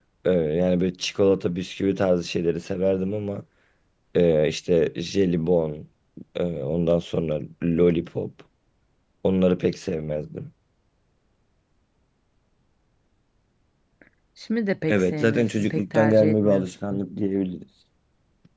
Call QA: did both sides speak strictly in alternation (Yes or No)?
No